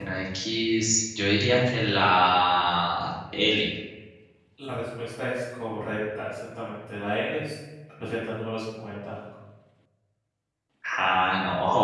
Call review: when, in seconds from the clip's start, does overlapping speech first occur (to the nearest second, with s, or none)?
none